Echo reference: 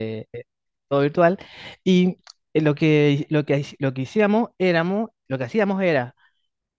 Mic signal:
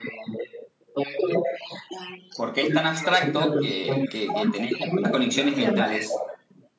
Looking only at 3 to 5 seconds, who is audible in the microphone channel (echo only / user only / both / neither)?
both